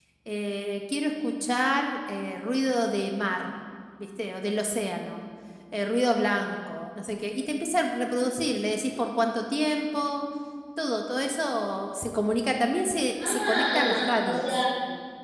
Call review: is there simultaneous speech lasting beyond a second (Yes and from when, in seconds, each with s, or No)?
Yes, from 13.1 s